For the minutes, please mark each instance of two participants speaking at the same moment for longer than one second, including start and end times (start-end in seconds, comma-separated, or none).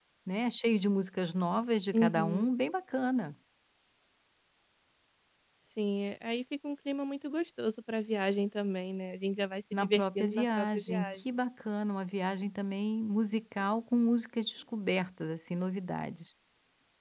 9.7-11.2